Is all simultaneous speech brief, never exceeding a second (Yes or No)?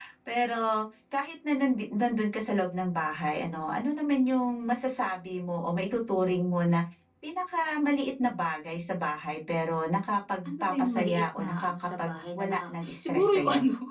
No